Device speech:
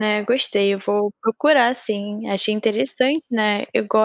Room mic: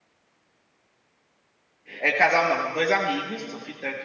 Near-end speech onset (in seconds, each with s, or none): 2.0 s